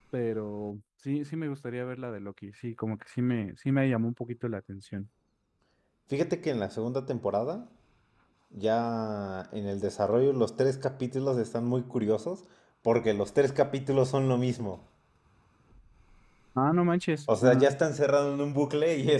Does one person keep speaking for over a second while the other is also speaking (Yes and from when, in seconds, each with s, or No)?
No